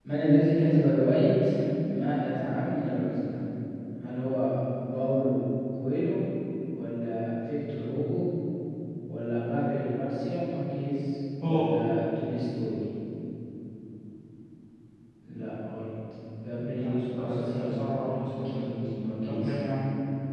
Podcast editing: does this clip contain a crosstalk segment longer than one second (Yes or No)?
Yes